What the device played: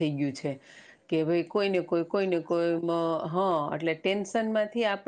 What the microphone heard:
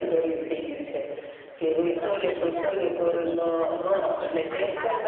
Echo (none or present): present